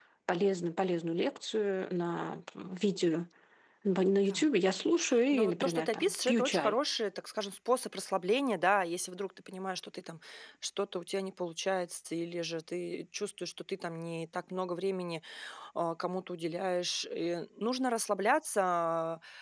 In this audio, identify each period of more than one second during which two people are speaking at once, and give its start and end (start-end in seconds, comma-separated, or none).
5.3-6.8